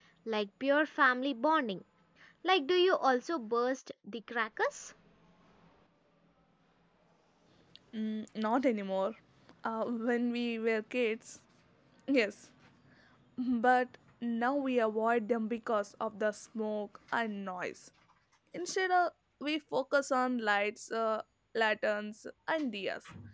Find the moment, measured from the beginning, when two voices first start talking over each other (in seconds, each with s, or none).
none